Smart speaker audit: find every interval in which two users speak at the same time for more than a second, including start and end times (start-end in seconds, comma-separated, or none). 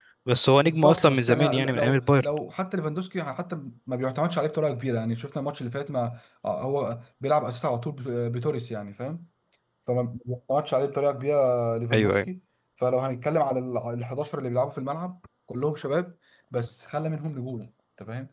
0.6-2.2